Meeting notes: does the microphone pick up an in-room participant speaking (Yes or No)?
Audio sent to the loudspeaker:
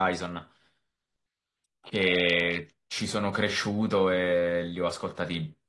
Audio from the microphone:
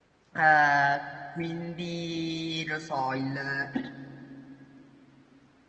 Yes